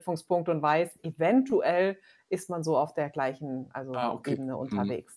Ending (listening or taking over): taking over